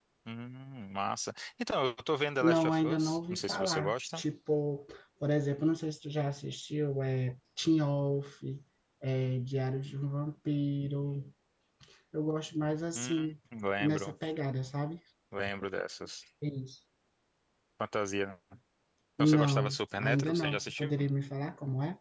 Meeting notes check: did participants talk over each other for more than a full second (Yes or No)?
Yes